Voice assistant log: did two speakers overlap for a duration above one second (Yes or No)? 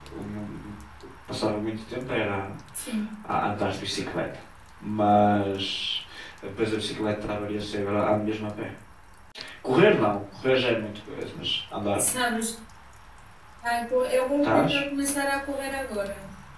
No